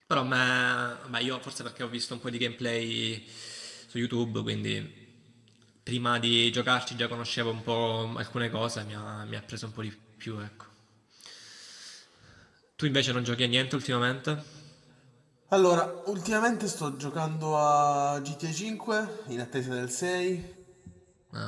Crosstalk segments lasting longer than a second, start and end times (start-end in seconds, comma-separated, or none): none